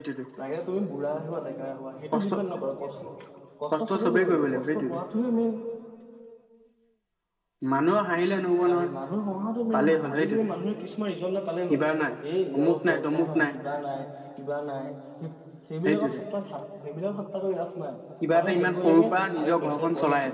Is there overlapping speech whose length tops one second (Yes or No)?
Yes